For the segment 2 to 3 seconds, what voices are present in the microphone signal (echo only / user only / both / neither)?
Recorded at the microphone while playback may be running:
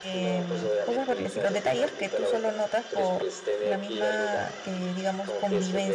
both